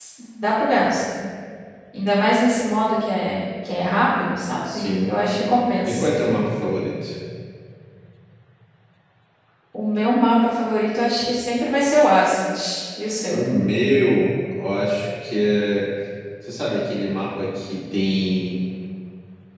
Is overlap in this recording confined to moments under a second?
Yes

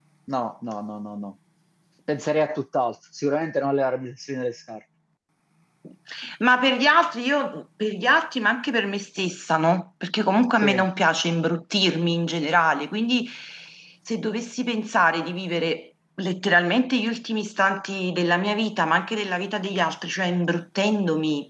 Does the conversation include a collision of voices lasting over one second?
No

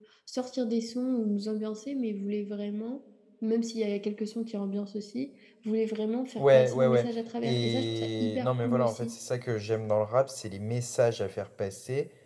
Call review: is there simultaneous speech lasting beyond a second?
Yes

